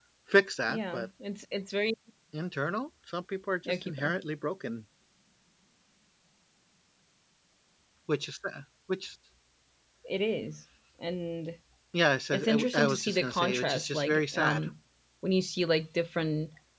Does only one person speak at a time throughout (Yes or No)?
No